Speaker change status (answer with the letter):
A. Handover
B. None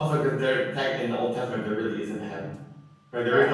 A